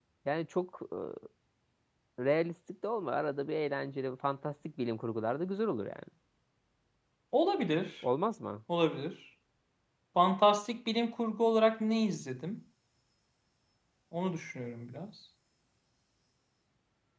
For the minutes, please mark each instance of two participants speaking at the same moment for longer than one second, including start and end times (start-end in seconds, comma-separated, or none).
none